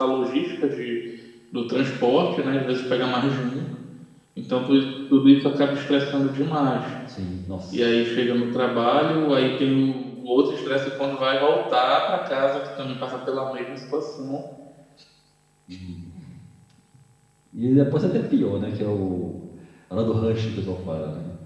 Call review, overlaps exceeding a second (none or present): none